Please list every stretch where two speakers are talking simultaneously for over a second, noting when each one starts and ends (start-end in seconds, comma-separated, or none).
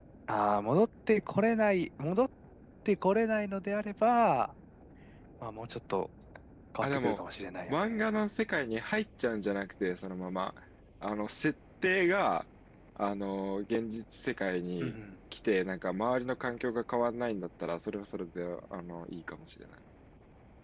none